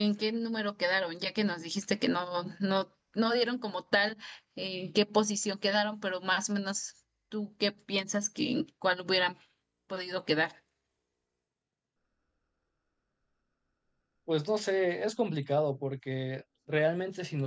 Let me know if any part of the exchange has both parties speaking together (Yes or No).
No